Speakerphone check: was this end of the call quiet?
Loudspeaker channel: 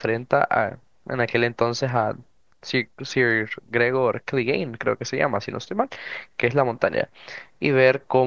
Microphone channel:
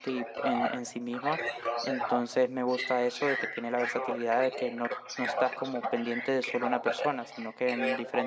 No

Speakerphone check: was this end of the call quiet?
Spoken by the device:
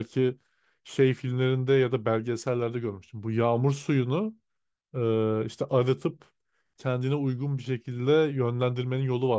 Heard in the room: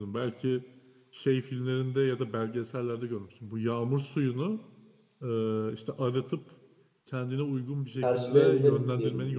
No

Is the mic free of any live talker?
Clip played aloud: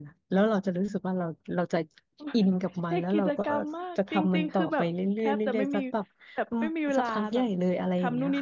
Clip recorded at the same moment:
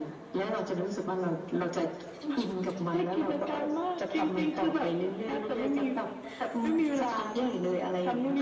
Yes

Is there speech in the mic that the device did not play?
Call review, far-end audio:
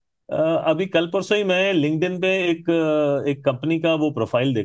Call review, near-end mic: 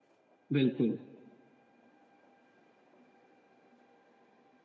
Yes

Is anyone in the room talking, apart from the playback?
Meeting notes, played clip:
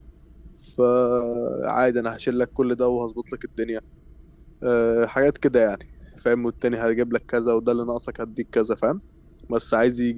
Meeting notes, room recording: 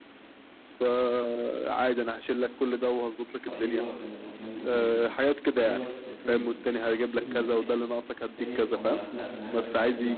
Yes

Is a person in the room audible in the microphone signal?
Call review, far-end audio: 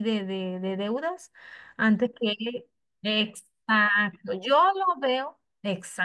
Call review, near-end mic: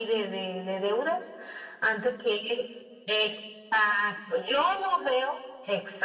No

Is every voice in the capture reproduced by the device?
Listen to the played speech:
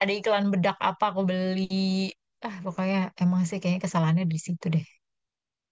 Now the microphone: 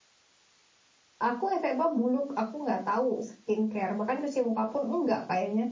No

